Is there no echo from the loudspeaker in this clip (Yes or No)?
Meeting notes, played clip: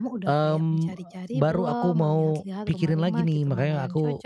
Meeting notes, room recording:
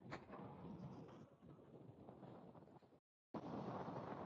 Yes